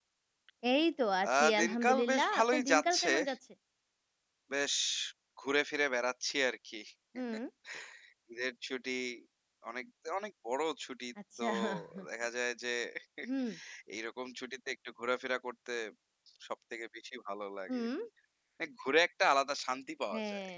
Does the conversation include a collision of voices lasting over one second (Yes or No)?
Yes